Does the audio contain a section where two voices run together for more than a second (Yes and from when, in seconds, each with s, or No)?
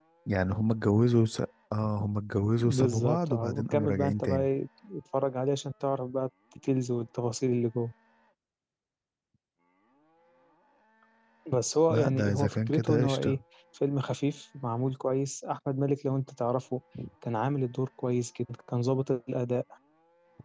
Yes, from 2.6 s